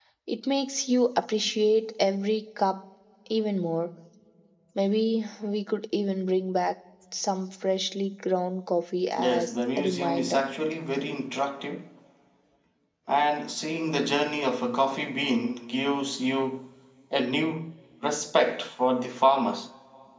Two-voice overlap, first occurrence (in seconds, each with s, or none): 9.1 s